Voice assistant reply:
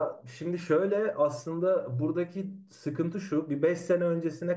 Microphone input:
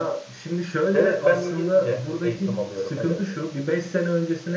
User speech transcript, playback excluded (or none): Evet ben İngilizce eğitim alıyorum. Evet.